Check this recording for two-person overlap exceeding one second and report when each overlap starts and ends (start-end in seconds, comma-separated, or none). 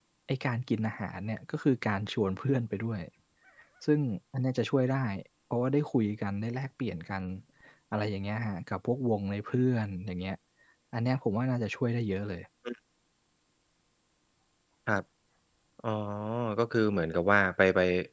none